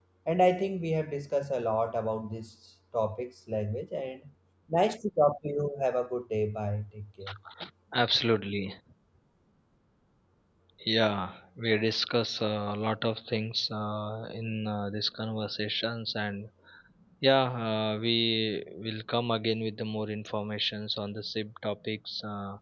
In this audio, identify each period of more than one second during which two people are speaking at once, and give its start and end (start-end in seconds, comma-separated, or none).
none